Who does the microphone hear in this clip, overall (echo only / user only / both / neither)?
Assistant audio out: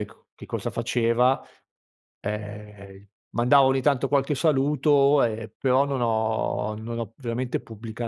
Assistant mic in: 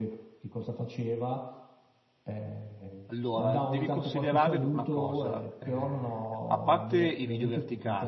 both